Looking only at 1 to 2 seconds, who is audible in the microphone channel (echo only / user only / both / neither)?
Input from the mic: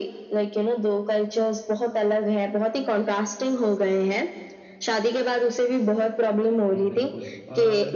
echo only